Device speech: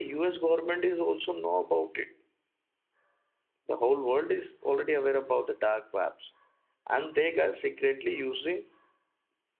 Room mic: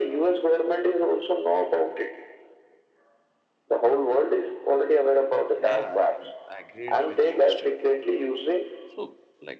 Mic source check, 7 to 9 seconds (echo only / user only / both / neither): both